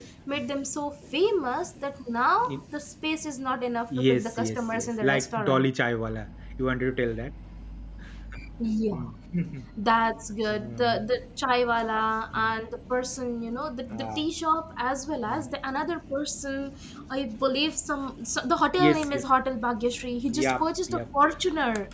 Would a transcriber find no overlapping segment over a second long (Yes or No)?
No